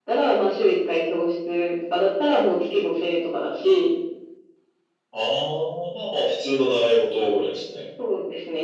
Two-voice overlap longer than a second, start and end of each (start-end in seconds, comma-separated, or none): none